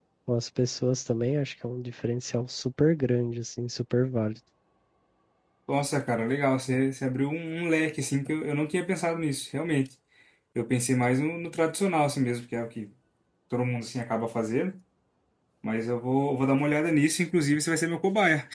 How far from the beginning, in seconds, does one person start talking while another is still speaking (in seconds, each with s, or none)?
none